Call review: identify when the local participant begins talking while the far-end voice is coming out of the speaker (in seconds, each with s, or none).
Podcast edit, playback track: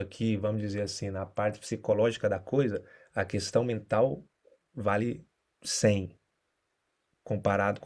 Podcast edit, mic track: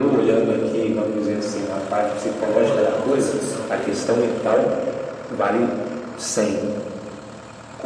2.5 s